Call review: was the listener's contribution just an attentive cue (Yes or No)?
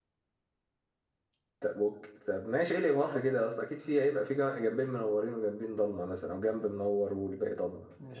No